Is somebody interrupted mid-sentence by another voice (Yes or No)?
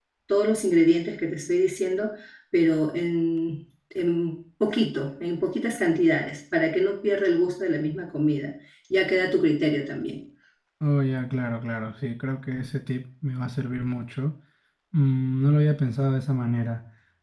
No